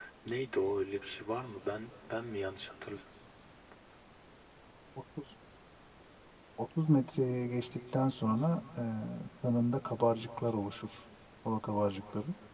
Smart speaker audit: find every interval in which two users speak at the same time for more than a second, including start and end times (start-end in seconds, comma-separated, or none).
none